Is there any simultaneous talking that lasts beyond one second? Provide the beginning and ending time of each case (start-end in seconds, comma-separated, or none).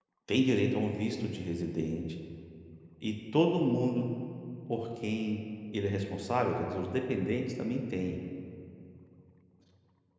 none